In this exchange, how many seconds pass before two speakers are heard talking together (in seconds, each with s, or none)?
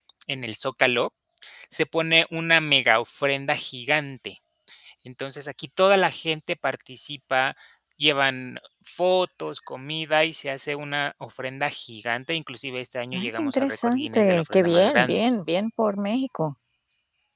13.1 s